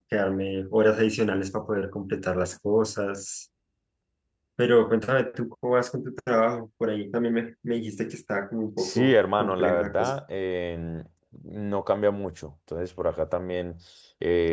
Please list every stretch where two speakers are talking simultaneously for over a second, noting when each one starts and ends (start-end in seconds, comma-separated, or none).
8.8-10.1